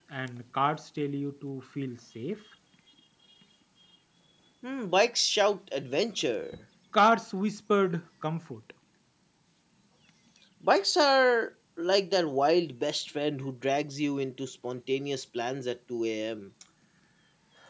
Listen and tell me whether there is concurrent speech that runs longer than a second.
No

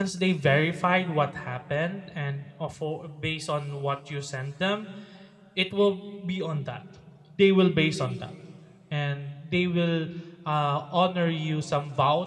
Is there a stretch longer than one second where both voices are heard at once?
No

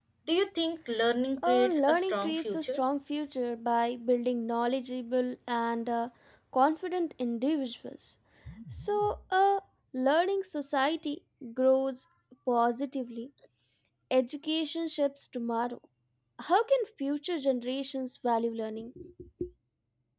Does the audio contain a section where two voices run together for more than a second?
Yes, from 1.4 s

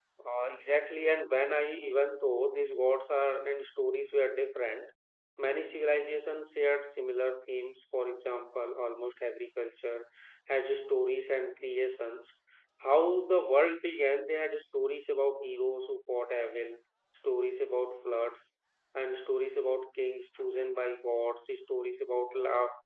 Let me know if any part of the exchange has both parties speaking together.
No

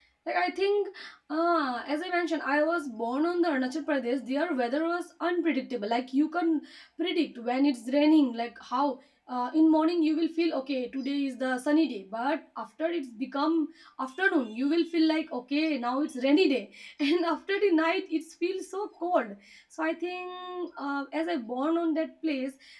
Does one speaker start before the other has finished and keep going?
No

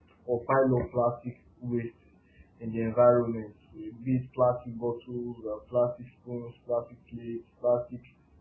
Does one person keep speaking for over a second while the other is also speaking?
No

